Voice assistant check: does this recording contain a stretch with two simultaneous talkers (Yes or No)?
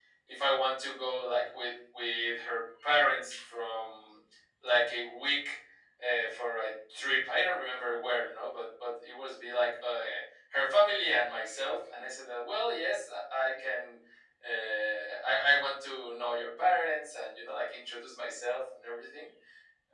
No